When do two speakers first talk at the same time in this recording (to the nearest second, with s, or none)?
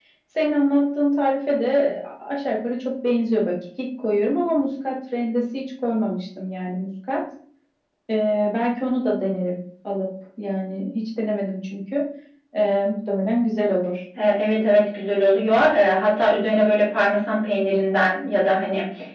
none